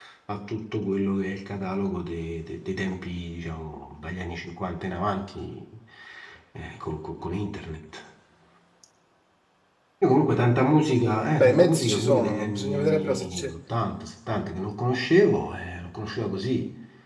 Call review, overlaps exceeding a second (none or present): present